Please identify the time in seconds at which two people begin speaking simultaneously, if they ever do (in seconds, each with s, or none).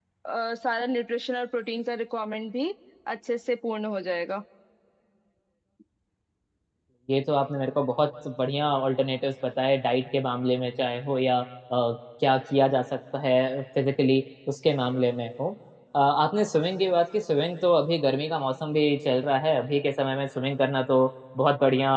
none